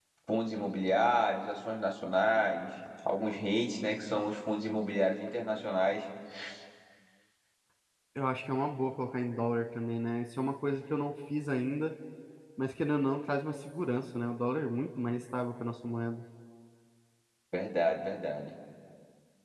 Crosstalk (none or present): none